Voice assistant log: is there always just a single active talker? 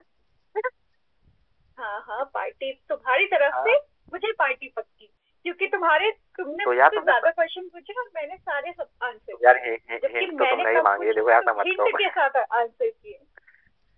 No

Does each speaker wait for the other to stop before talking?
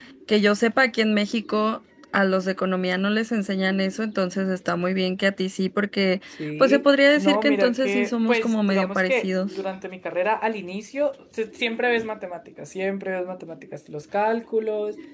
No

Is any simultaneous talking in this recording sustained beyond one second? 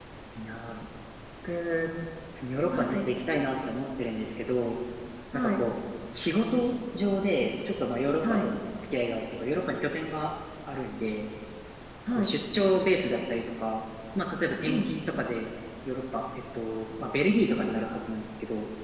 No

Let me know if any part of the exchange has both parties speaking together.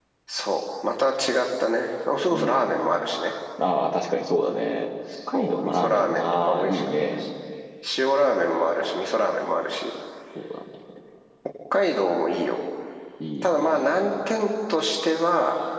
Yes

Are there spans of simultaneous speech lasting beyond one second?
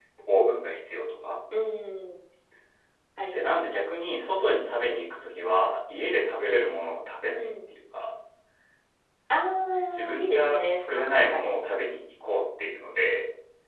Yes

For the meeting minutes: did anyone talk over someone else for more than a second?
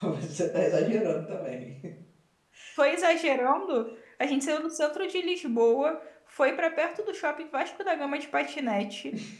No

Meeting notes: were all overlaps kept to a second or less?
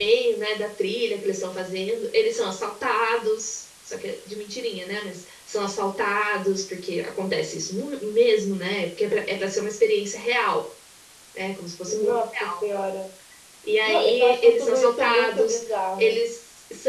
No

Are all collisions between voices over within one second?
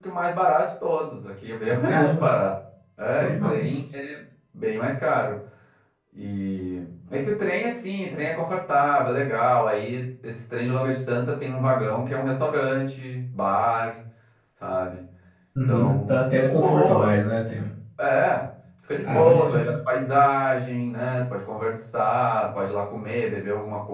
No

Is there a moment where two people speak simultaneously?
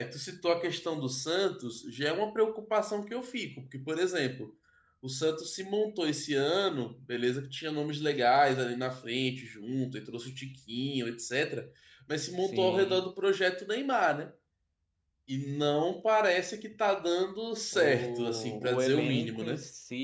Yes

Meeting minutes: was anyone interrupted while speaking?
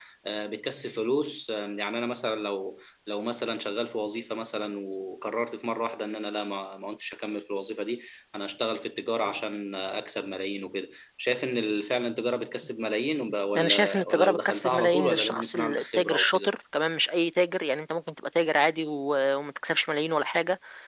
Yes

